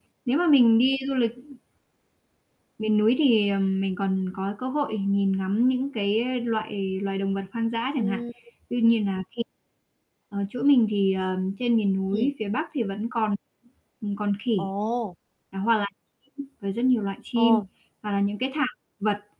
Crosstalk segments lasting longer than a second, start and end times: none

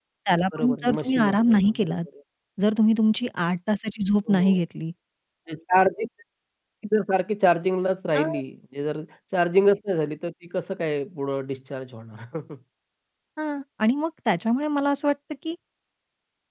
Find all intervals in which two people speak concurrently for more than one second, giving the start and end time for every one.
0.6-2.0

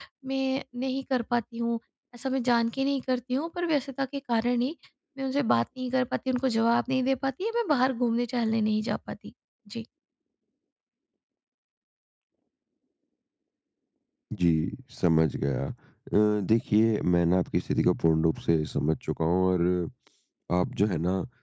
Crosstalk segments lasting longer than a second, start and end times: none

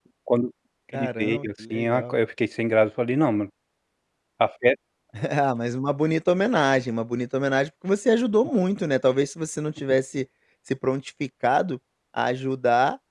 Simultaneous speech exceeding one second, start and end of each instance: 0.9-2.2

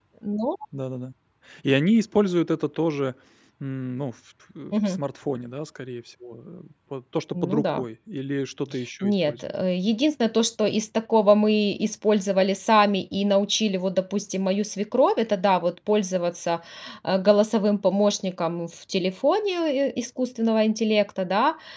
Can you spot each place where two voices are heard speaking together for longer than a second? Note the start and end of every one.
none

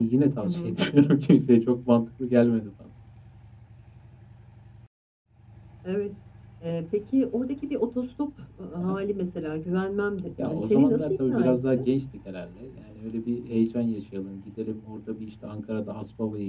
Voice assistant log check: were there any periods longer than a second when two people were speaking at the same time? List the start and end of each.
10.4-11.8

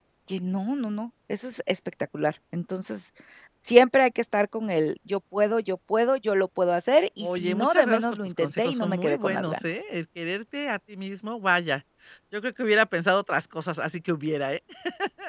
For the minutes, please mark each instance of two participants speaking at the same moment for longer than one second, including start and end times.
7.2-9.6

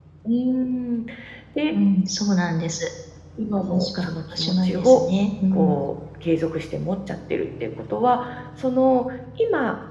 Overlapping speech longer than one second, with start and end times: 3.7-5.0

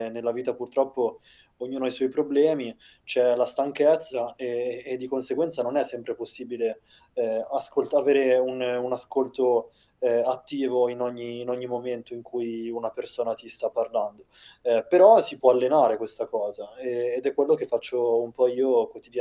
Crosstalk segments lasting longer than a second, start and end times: none

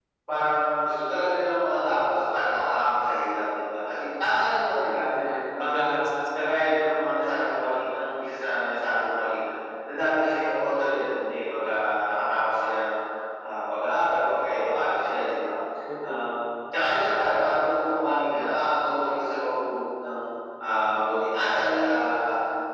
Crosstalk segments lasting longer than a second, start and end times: none

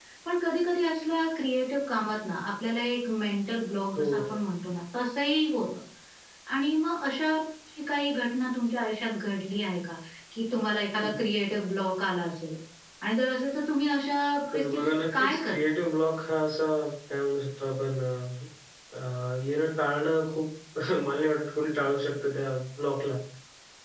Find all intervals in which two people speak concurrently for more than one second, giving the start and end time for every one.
14.5-15.8

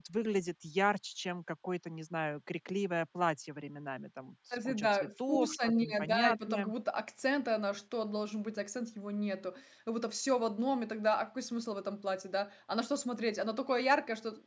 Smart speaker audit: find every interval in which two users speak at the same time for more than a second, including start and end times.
4.5-6.7

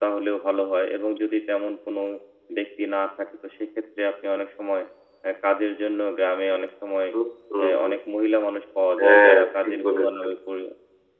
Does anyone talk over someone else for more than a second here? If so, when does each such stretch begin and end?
9.0-10.3

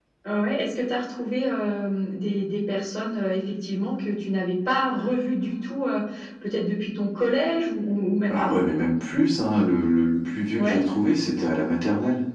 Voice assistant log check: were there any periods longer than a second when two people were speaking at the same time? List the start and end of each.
none

